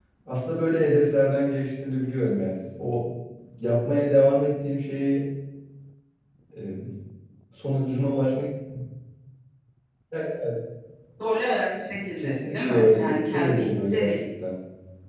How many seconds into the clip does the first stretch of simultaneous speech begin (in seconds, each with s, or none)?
12.2 s